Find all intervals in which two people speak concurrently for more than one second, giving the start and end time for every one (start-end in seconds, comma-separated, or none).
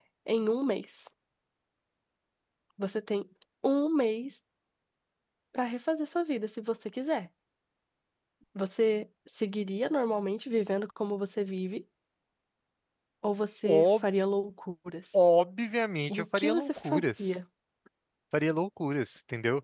16.1-17.4